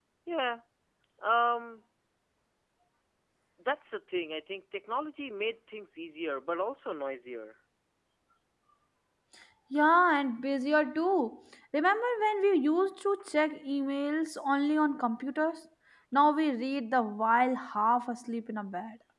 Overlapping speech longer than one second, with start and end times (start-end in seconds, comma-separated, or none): none